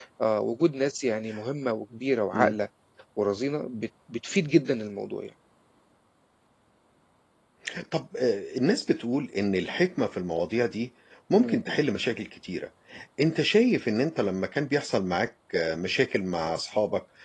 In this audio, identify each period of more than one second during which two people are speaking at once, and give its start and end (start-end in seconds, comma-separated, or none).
none